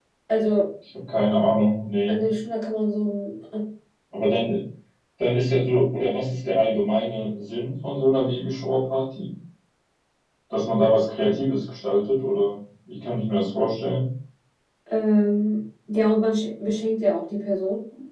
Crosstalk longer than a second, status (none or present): none